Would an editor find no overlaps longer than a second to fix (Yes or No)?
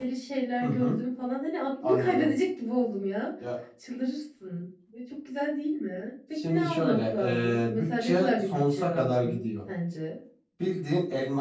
No